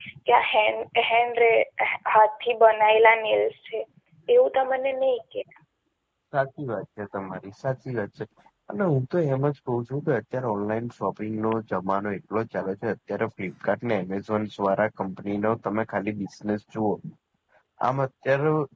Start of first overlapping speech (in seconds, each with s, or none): none